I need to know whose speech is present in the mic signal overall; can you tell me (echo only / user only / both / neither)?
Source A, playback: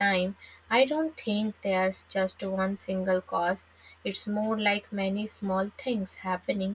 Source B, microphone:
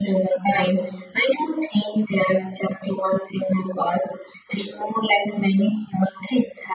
echo only